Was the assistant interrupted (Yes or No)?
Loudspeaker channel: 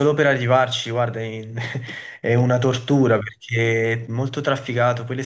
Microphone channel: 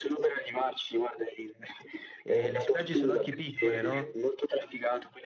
Yes